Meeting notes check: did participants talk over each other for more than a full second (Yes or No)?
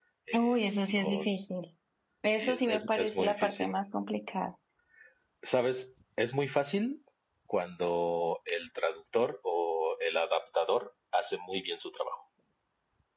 Yes